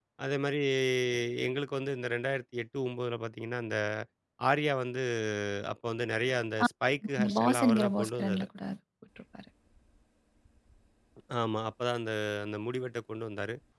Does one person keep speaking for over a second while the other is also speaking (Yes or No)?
Yes